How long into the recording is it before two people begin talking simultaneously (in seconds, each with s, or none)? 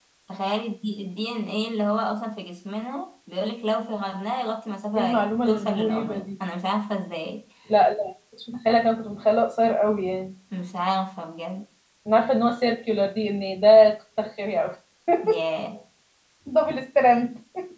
4.9 s